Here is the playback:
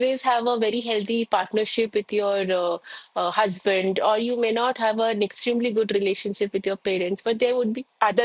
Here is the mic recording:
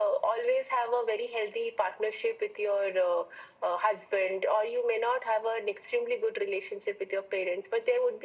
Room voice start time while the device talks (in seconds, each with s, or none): none